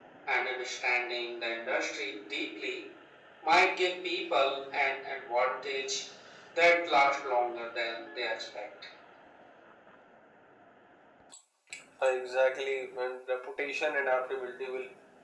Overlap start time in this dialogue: none

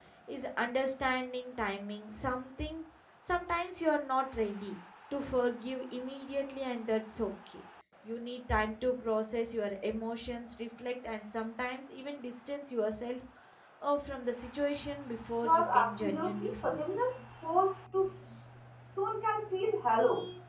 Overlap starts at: 15.4 s

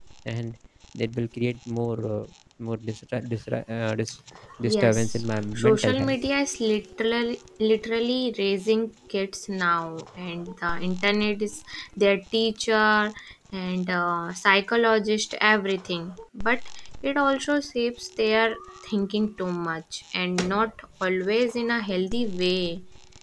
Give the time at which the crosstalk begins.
4.7 s

